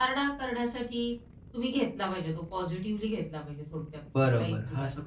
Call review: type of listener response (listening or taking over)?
taking over